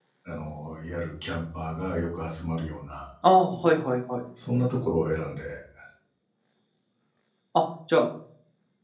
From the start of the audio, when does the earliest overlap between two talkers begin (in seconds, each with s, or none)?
none